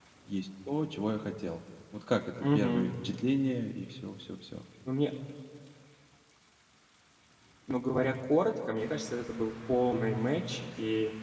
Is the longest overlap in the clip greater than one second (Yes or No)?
No